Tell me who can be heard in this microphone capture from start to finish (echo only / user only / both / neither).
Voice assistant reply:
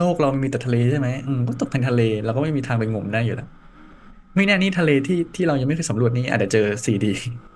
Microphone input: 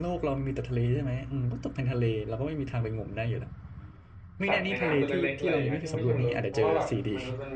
both